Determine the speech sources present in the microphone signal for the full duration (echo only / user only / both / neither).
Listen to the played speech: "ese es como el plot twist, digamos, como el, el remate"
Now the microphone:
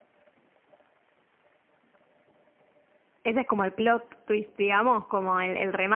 echo only